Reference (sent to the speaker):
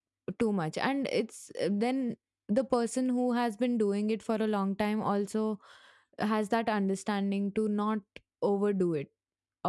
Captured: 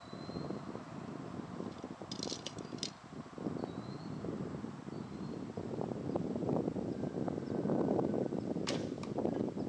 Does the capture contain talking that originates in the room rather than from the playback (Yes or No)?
No